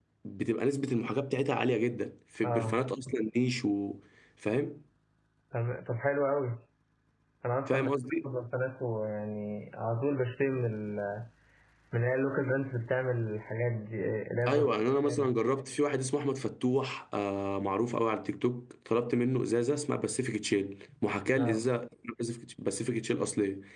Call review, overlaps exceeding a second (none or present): none